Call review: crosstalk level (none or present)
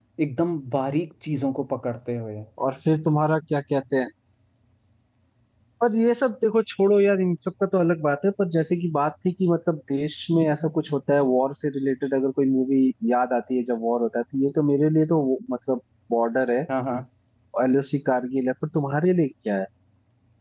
none